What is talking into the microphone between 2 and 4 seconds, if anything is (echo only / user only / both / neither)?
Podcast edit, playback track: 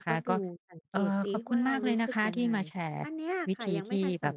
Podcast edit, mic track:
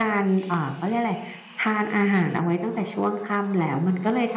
user only